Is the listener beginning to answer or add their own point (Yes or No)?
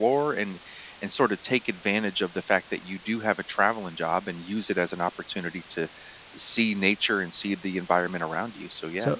Yes